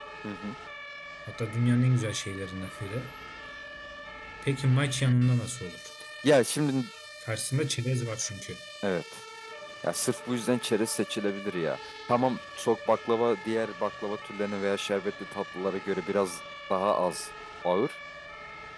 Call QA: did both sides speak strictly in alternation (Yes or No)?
Yes